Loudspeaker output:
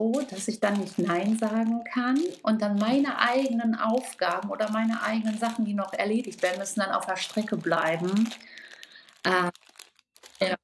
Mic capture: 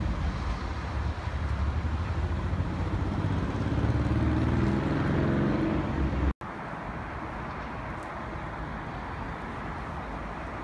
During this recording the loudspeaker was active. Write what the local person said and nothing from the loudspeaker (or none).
none